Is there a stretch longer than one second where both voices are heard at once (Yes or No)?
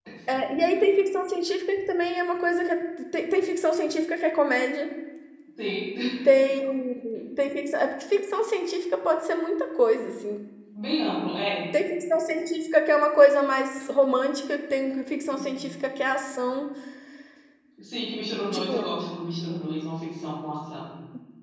No